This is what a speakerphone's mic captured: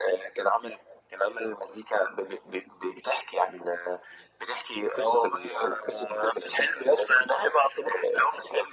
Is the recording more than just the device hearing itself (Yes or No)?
No